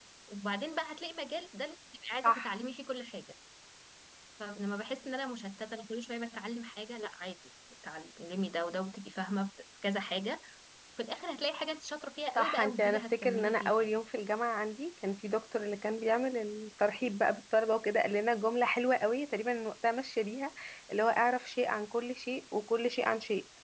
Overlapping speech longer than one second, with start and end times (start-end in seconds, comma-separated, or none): 12.3-13.9